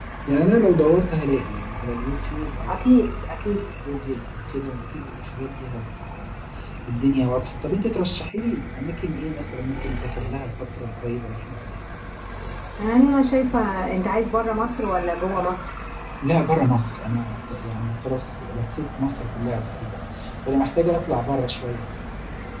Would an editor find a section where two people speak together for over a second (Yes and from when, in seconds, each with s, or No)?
No